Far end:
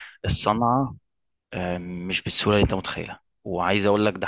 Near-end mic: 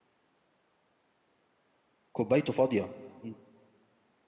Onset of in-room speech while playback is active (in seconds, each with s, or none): 2.1 s